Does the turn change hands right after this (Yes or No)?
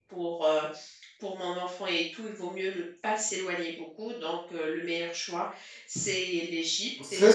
Yes